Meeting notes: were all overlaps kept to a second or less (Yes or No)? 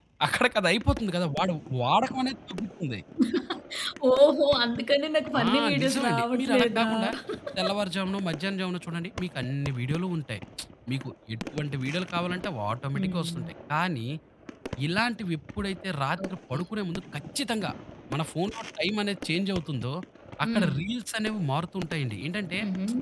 No